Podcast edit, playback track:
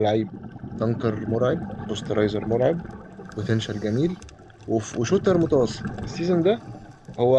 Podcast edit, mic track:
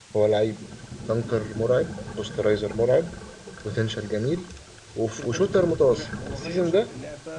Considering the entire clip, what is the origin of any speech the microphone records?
both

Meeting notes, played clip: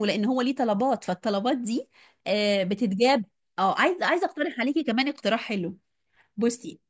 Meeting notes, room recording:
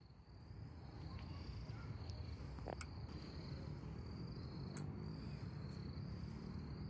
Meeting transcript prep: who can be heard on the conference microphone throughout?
neither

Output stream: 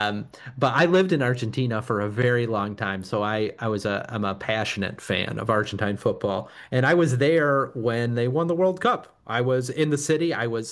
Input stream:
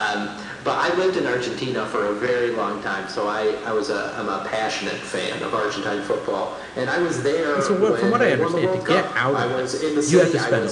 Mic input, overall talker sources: both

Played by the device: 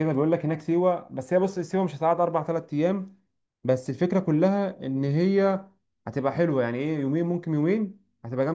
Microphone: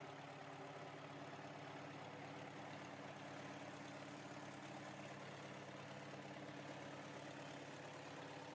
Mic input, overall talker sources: neither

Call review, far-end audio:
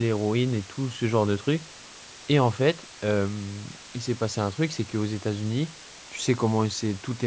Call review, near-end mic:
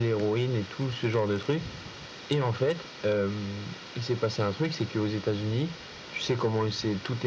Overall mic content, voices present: echo only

